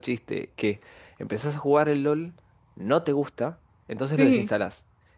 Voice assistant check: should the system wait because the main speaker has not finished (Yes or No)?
Yes